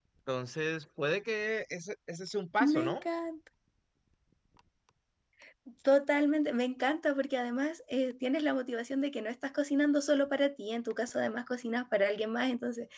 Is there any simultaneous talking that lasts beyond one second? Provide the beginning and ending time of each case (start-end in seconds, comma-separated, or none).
none